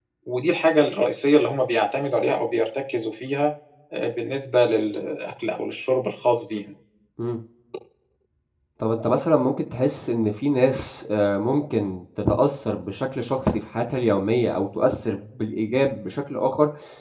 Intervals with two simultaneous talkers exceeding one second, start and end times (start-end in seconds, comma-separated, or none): none